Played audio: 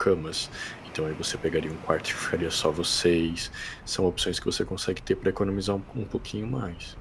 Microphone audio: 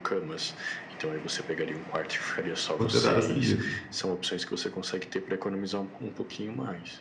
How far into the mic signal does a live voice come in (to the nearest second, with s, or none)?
3 s